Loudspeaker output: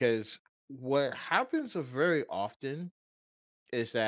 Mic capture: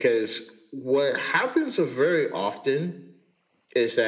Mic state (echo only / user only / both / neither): echo only